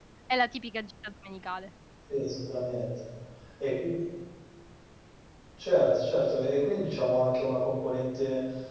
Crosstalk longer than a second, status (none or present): none